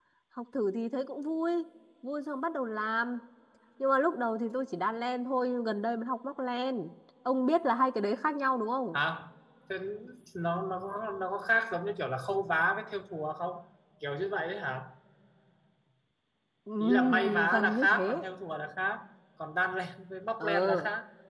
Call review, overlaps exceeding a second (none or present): present